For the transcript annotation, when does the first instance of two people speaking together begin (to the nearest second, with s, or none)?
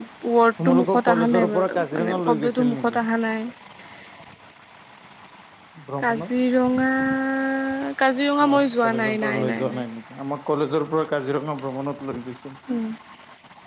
1 s